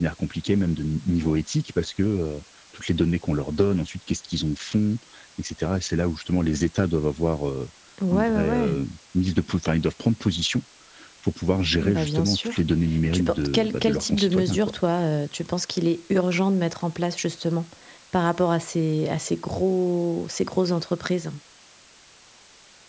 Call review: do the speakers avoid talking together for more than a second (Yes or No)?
No